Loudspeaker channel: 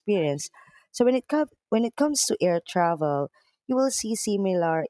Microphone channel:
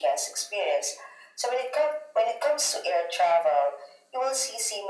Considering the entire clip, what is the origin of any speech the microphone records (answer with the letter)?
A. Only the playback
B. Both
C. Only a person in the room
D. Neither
A